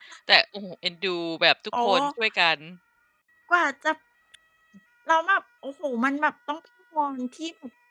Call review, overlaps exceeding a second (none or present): none